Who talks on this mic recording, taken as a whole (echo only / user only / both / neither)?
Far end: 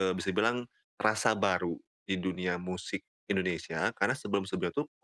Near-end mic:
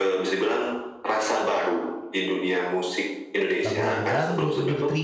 both